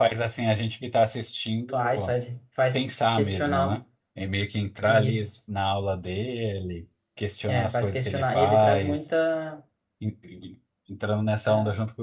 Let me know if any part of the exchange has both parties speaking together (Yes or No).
Yes